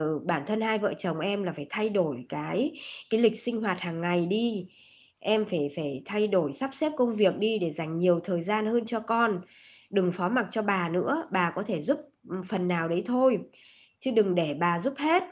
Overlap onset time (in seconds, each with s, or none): none